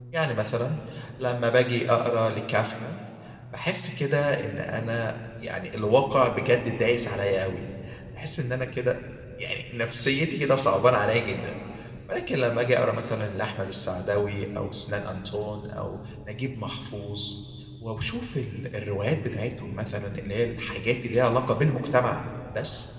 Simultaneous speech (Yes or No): No